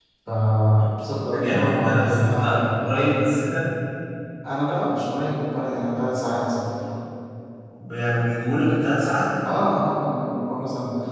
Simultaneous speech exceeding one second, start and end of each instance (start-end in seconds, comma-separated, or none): 1.3-2.9